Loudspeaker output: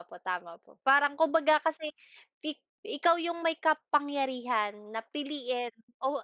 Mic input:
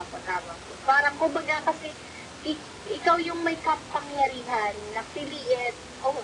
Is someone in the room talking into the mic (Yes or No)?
No